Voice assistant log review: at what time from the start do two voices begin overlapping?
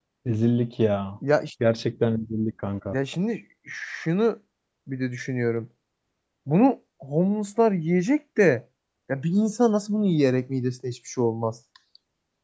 none

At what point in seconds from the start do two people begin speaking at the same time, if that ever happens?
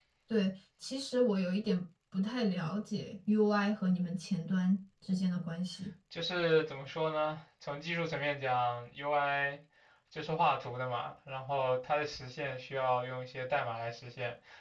none

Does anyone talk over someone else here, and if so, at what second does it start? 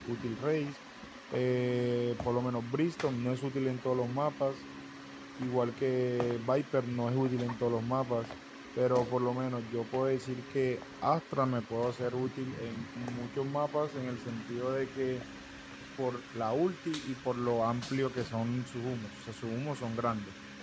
none

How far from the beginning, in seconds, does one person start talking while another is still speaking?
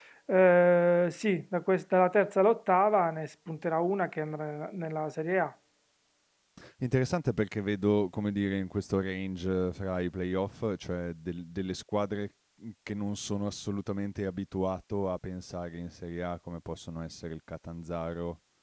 none

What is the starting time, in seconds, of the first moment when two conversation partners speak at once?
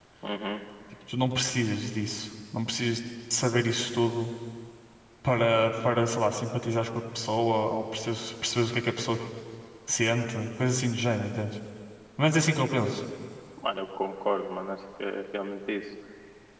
none

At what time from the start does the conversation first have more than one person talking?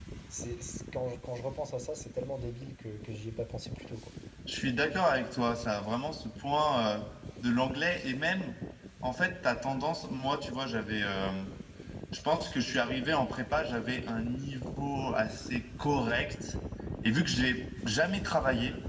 none

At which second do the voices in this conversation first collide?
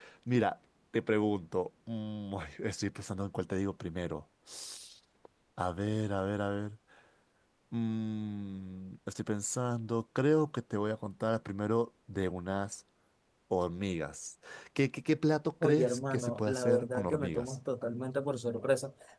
15.6 s

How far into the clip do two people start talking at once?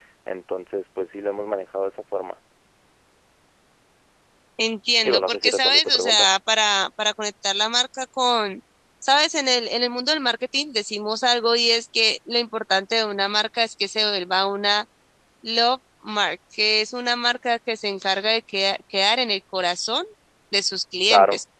5.0 s

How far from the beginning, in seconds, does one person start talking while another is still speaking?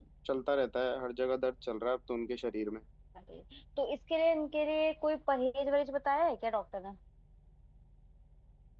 none

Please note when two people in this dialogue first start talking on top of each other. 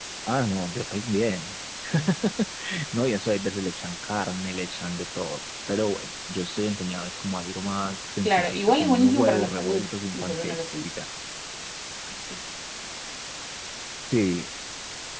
8.2 s

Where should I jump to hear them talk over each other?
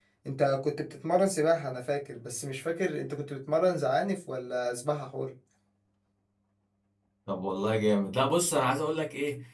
none

